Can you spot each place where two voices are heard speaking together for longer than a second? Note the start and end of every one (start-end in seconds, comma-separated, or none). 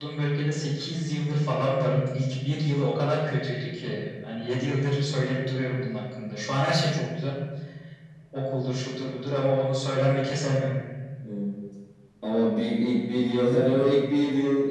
none